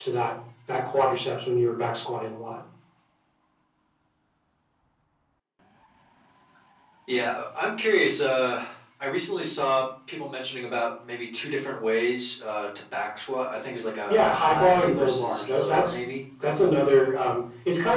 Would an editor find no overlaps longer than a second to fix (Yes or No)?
No